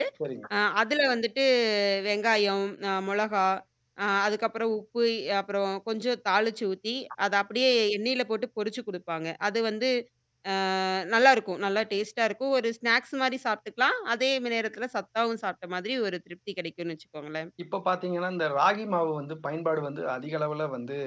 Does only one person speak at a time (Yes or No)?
Yes